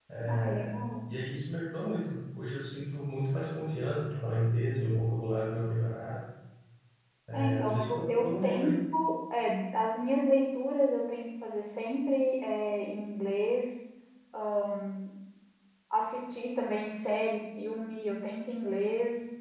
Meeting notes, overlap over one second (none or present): present